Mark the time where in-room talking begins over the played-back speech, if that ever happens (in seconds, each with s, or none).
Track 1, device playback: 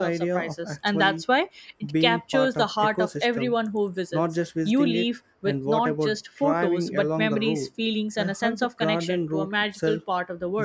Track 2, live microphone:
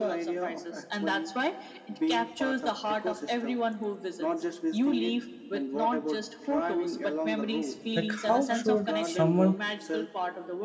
7.9 s